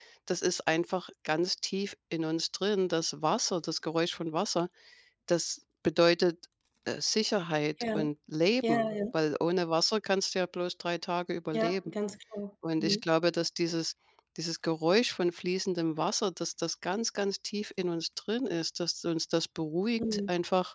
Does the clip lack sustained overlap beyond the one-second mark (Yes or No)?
Yes